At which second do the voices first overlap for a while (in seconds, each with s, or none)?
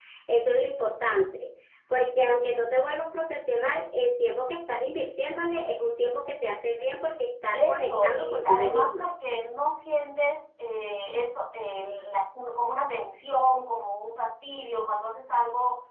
7.5 s